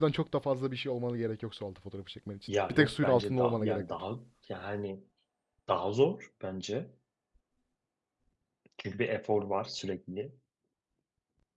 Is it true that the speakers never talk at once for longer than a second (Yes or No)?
No